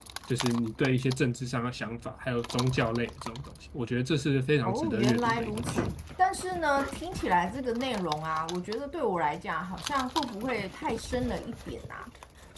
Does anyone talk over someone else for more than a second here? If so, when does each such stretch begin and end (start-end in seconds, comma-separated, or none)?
4.7-5.9